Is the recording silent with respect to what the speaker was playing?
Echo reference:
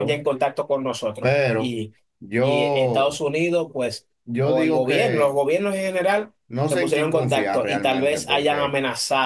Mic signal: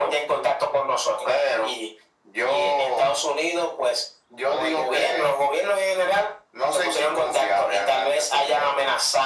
No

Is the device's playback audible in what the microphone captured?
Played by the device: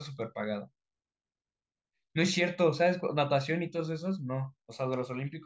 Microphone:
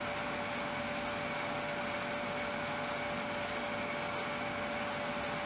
No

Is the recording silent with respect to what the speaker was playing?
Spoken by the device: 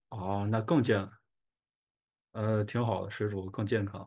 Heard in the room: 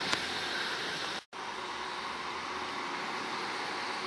Yes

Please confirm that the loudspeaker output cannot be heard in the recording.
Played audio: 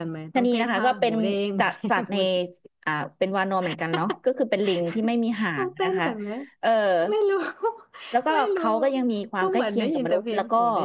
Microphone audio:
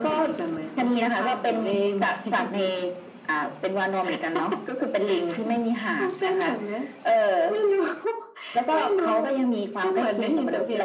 No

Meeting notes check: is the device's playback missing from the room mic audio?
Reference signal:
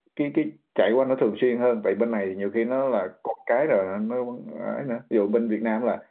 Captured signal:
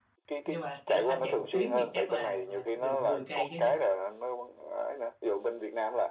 No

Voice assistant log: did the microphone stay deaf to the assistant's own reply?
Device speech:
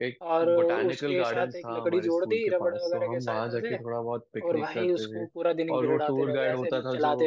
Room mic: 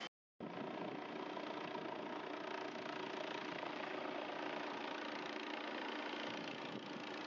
Yes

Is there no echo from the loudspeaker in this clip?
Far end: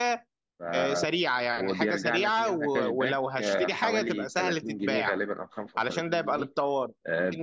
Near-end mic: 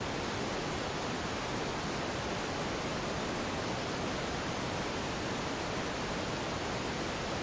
Yes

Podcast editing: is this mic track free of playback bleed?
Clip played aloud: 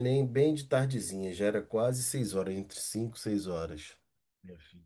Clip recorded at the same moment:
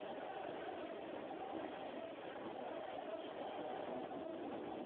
Yes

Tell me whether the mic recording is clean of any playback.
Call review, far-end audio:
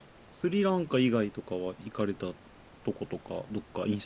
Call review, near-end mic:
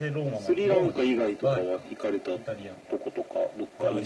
No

